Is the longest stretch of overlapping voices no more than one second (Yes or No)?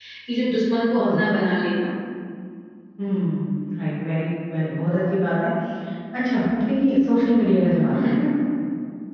Yes